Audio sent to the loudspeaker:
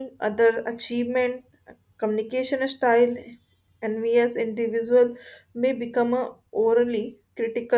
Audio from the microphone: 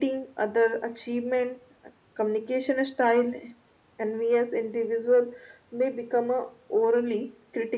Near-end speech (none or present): none